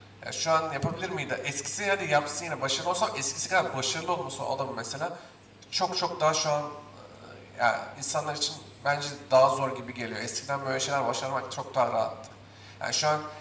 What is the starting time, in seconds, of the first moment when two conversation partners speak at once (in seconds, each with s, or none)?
none